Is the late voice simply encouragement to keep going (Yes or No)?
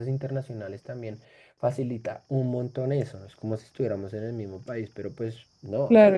No